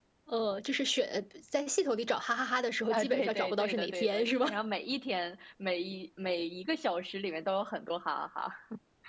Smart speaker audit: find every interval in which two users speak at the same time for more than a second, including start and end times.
2.9-4.5

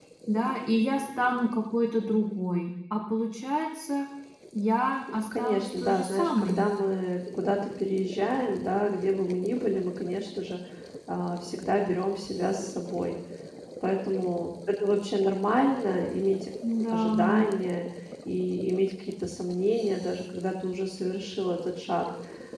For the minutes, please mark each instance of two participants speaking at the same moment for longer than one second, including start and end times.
5.1-6.6

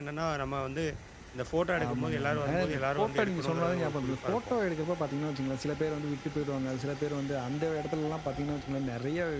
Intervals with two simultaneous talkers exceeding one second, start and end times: 1.8-4.5

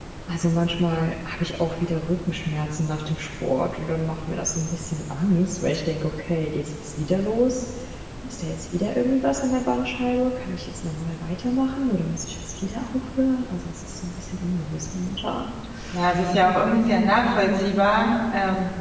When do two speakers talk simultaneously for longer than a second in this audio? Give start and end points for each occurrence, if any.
none

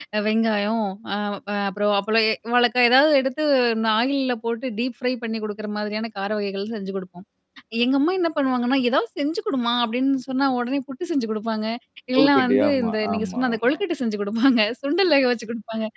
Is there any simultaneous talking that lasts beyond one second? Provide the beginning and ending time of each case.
12.2-13.6

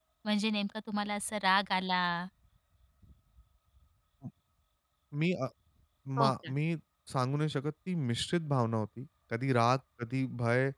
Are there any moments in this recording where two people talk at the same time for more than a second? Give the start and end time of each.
none

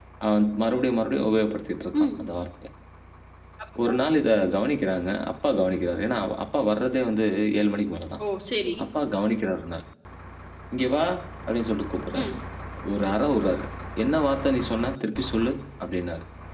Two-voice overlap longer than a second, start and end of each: none

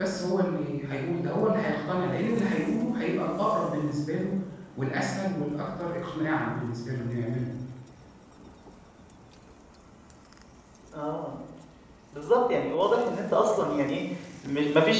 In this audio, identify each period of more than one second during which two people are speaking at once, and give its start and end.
none

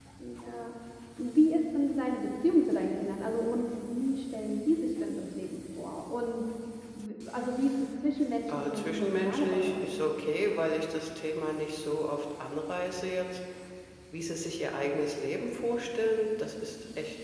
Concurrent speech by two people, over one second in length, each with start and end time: 8.5-9.9

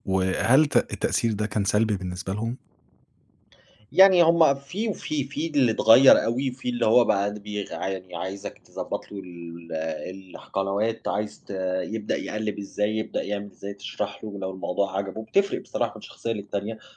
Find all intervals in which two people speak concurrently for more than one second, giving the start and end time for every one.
none

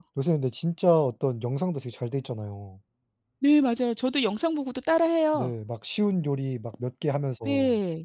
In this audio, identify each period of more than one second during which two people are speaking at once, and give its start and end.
none

